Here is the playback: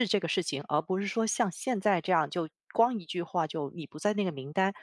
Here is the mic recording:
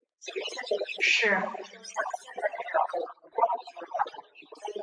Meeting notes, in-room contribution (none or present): present